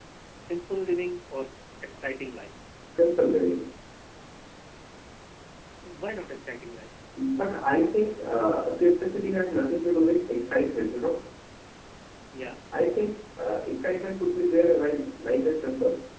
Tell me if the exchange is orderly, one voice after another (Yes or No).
Yes